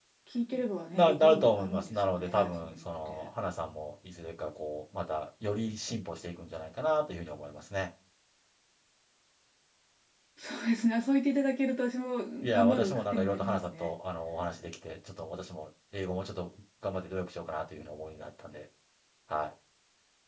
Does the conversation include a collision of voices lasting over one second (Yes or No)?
Yes